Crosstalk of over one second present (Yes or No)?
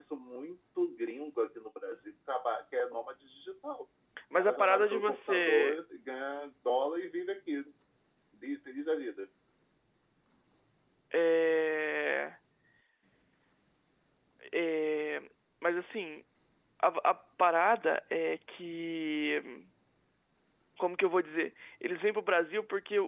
Yes